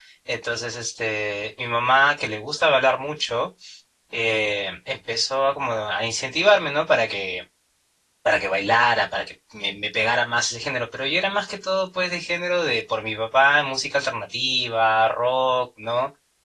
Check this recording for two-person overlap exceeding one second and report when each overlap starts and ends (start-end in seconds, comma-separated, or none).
none